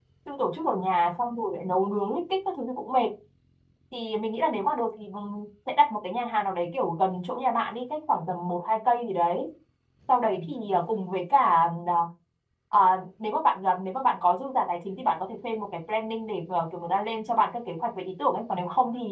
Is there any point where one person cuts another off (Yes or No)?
No